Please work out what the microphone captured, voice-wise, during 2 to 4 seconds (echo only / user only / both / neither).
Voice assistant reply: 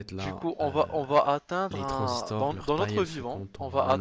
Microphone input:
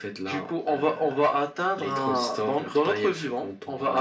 echo only